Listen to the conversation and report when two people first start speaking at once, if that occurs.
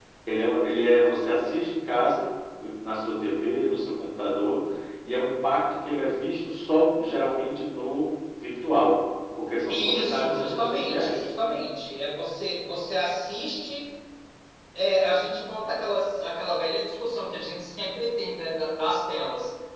10 s

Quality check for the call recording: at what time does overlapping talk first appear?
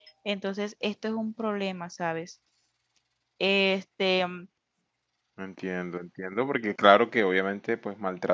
none

